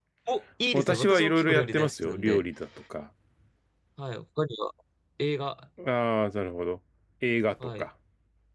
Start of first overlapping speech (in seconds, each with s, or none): 0.7 s